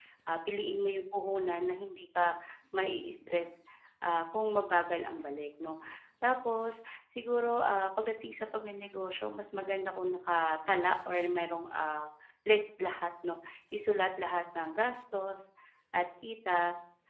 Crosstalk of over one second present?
No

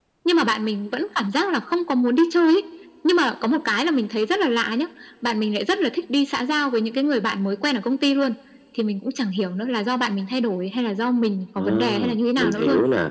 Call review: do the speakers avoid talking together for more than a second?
No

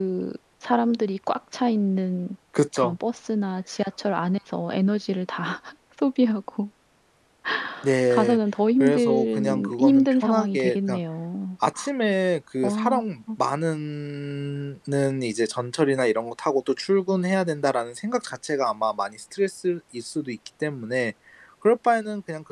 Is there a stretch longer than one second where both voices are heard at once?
Yes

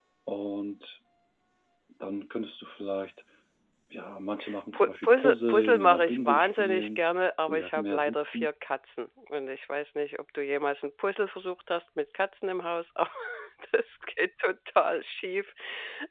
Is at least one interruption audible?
Yes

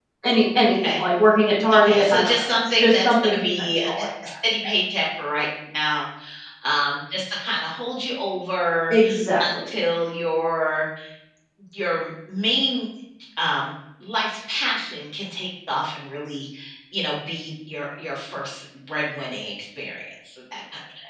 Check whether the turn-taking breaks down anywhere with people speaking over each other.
Yes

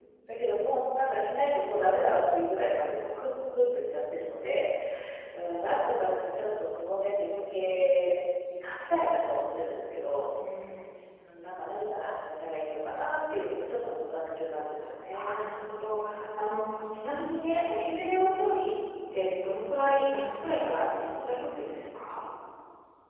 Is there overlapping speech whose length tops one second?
No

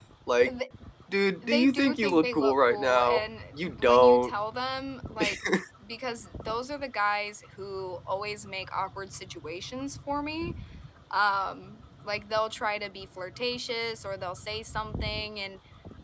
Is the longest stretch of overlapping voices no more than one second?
No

